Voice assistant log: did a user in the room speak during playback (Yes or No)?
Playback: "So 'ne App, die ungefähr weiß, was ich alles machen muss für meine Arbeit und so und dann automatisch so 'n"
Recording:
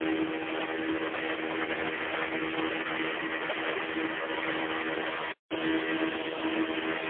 No